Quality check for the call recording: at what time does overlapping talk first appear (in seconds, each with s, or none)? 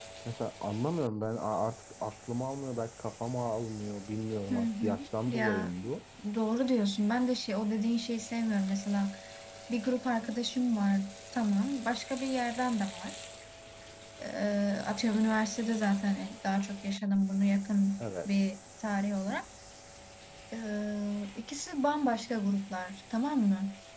4.5 s